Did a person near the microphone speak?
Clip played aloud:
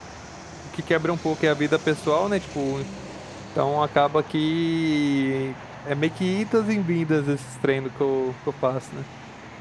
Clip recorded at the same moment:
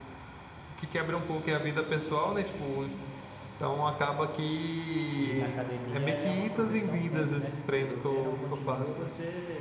Yes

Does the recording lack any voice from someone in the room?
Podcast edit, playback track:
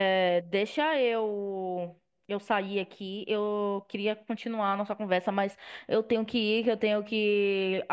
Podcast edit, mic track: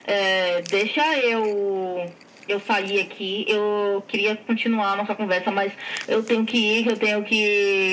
Yes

